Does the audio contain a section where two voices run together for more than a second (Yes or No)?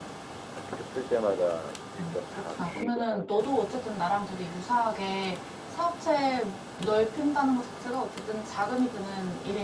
Yes